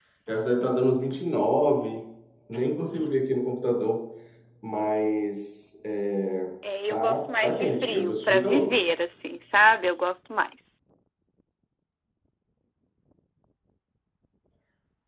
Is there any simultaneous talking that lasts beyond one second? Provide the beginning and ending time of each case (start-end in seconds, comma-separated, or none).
6.9-8.8